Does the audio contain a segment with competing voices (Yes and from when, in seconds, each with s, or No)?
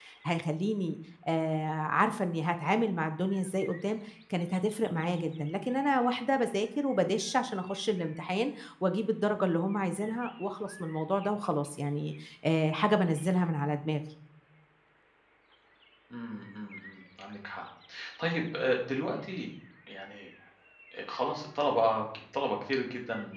No